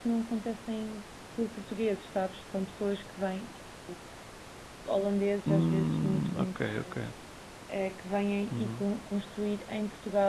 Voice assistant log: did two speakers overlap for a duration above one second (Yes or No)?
Yes